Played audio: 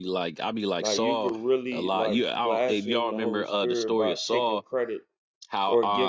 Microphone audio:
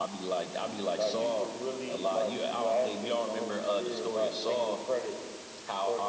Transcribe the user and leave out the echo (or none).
none